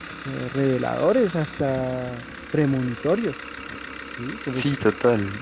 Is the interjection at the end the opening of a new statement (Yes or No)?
Yes